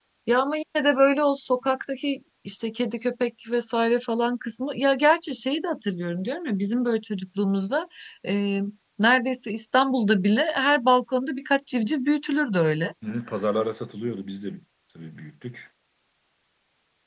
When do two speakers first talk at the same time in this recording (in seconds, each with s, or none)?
none